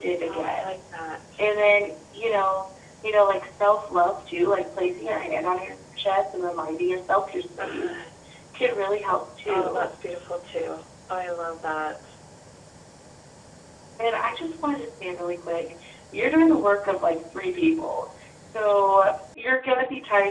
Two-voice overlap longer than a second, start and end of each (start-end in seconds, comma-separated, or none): none